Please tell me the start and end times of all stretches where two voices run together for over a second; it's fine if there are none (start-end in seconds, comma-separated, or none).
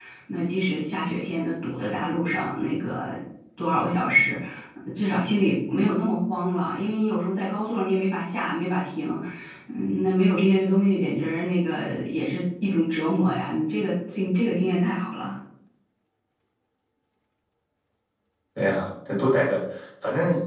none